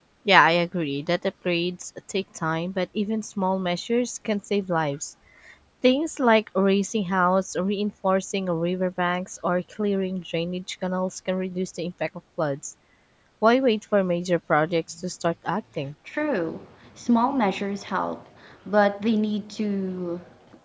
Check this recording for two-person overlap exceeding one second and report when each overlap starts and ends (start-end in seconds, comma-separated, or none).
none